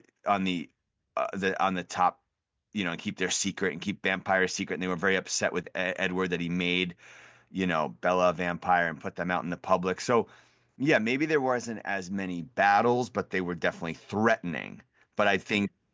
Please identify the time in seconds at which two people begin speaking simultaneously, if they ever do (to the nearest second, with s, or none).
none